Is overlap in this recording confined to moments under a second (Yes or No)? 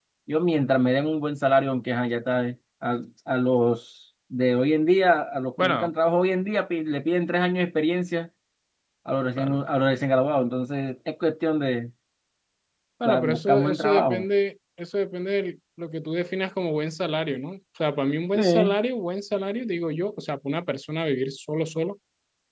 No